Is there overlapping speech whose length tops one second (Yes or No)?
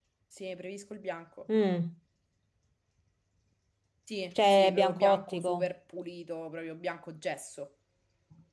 Yes